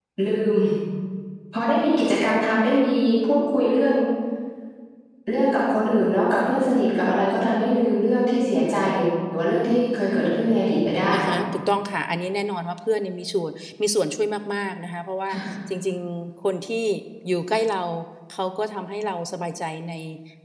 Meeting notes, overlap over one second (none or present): none